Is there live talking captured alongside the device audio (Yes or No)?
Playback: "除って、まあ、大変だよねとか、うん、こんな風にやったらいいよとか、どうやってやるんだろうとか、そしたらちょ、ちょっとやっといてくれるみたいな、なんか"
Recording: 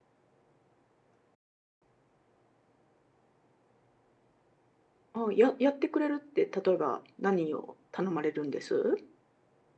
Yes